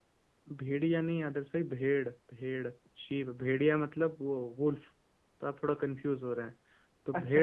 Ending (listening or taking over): taking over